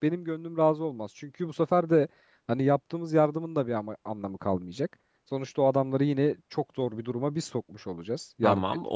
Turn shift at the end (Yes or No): Yes